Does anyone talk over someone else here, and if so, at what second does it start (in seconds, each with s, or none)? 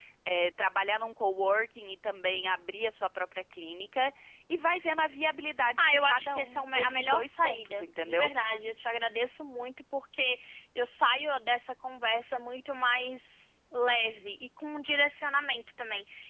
5.8 s